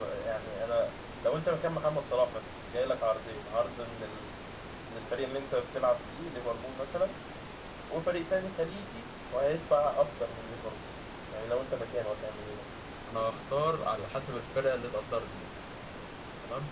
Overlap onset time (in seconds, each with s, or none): none